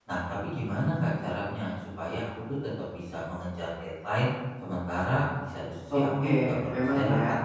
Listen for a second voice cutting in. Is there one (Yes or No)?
Yes